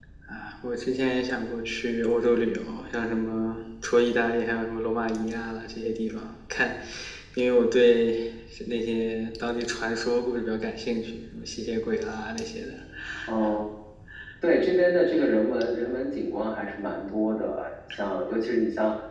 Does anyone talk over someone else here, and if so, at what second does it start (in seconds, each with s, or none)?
none